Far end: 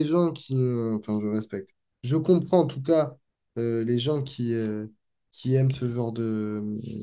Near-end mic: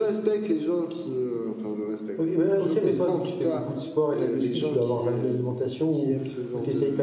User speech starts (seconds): 2.2 s

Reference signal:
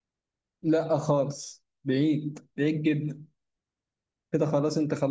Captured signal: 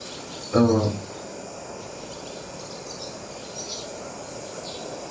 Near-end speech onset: 0.5 s

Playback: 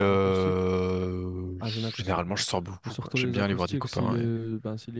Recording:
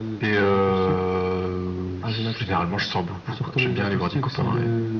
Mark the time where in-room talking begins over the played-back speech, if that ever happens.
none

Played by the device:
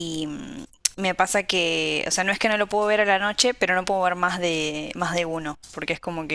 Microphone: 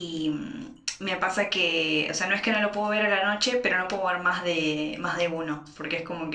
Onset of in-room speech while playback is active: none

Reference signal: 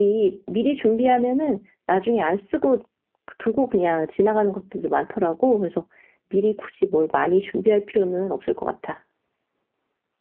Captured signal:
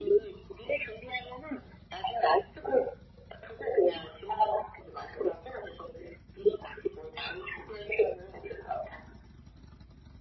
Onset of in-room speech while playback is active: none

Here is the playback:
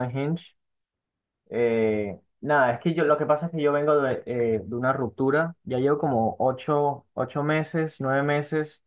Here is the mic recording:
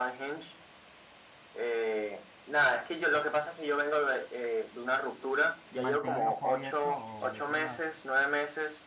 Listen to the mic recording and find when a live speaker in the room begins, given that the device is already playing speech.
5.7 s

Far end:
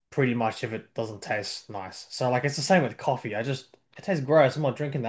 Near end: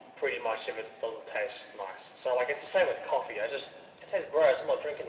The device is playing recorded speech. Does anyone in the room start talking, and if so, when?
none

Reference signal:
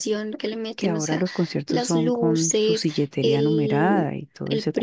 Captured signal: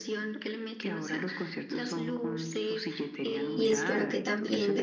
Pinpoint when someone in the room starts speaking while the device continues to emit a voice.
3.5 s

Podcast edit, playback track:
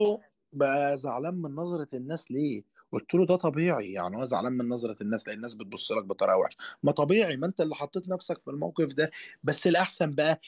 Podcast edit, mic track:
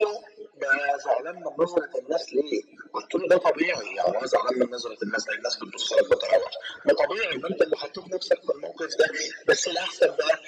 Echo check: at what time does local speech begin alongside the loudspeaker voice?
none

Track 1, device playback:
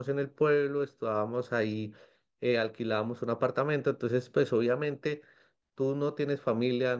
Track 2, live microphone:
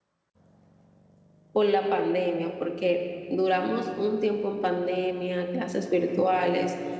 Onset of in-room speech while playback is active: 1.5 s

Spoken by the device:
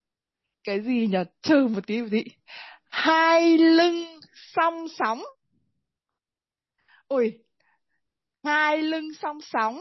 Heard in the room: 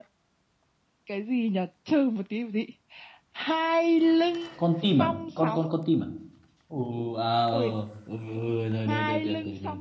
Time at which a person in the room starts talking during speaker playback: 4.5 s

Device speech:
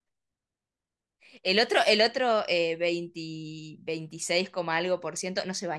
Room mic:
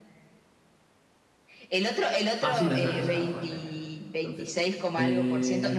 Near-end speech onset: 2.4 s

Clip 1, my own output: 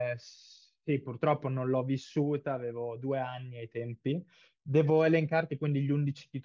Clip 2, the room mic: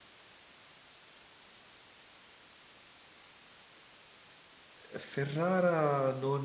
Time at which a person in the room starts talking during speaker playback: 4.9 s

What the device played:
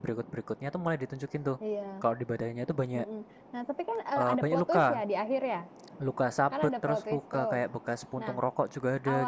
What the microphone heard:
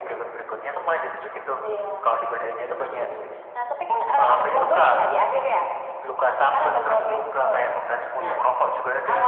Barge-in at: 8.2 s

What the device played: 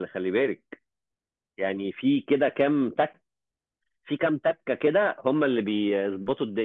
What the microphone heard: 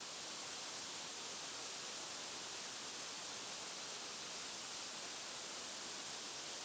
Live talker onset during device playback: none

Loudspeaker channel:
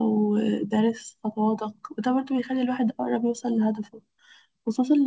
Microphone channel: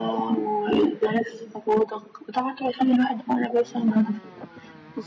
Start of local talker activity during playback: none

